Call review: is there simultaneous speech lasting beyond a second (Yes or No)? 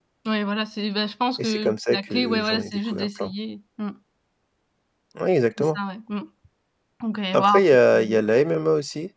Yes